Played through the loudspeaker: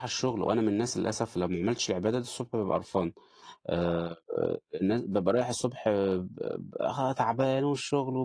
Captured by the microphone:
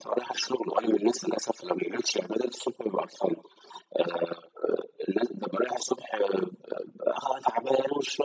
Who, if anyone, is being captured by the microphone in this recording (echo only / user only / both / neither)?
echo only